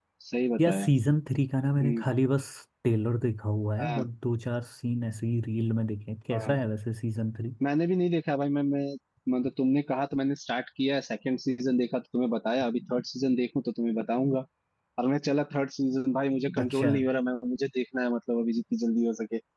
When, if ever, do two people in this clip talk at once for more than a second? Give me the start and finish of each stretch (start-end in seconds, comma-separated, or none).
none